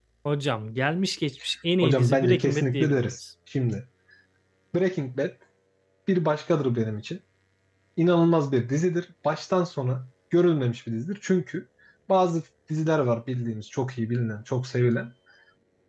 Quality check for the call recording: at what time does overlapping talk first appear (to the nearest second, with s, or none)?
2 s